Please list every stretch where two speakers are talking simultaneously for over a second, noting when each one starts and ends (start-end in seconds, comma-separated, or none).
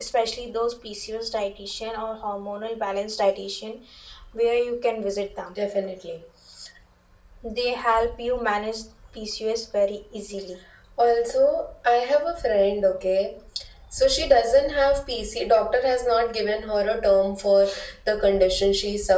none